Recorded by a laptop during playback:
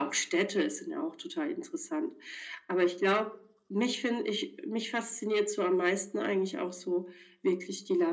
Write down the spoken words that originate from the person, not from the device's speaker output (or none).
none